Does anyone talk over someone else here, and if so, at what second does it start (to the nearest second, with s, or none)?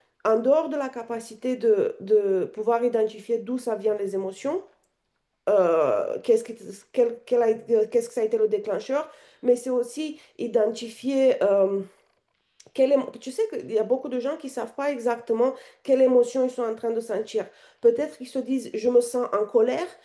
none